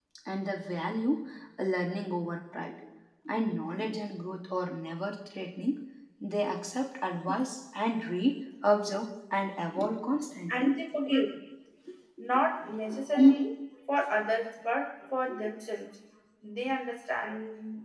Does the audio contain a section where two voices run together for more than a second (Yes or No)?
No